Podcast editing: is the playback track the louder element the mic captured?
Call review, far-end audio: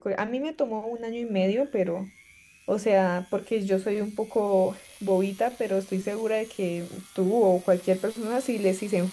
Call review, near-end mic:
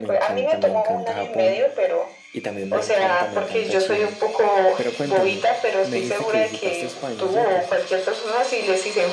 Yes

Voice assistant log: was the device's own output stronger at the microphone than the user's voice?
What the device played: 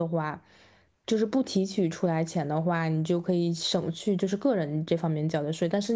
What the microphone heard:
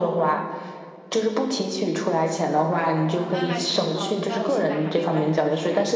Yes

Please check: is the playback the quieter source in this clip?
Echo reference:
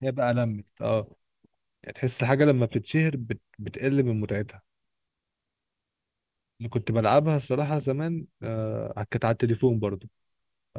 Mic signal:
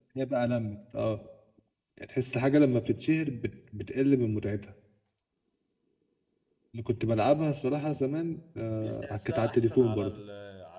No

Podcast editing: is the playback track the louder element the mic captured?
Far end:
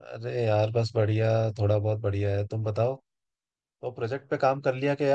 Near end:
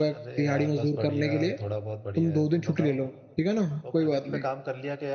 No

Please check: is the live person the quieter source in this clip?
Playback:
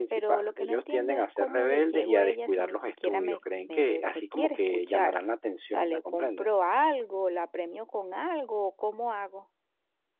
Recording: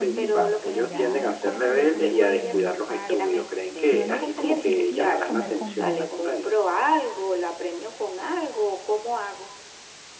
Yes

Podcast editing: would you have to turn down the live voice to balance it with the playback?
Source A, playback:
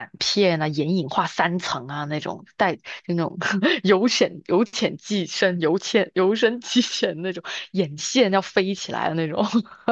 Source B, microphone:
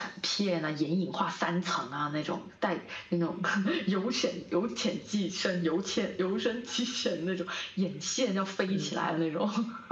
No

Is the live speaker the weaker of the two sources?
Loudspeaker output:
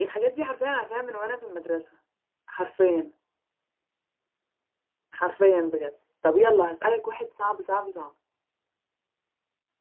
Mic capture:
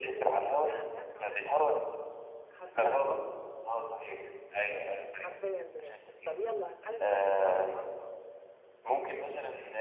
No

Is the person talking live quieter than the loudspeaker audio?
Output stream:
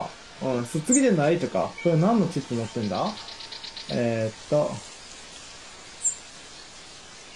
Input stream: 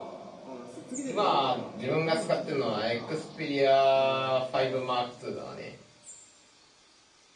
No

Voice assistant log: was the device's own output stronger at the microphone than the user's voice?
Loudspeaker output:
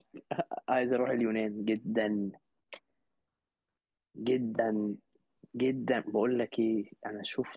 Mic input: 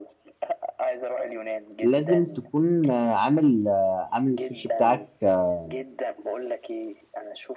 No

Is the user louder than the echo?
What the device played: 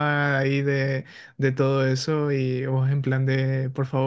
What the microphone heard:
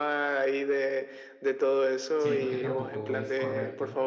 No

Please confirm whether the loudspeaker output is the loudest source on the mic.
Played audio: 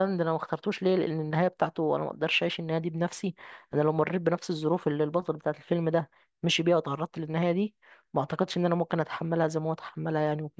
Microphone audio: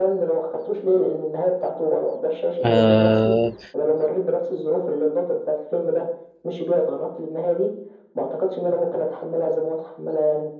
No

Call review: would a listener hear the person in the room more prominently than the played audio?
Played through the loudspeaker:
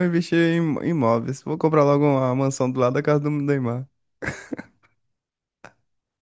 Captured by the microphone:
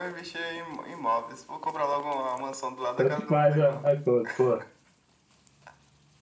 Yes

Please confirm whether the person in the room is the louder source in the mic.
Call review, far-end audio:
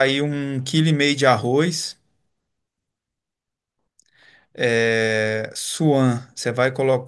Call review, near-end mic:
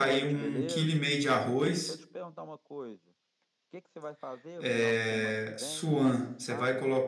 No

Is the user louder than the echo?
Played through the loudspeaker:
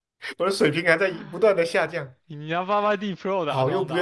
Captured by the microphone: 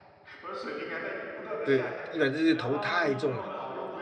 Yes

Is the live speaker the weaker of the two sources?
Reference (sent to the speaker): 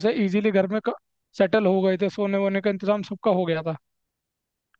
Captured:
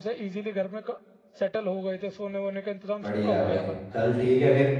No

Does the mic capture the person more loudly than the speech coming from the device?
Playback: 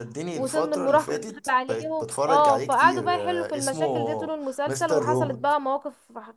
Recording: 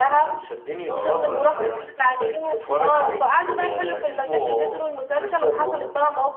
No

